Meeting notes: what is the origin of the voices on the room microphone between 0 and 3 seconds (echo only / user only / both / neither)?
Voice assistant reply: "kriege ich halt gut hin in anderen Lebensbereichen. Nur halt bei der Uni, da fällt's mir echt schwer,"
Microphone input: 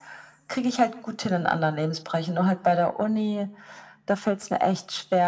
echo only